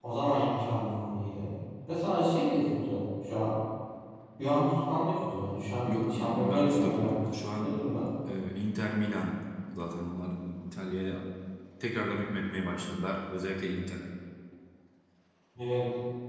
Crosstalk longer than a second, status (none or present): present